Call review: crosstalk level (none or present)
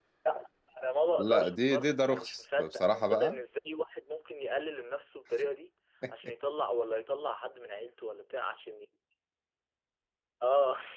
present